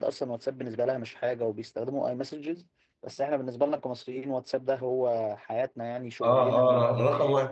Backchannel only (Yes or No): No